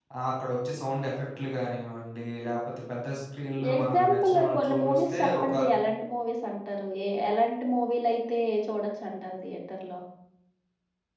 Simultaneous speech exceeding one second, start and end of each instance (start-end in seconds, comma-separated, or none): 3.7-5.5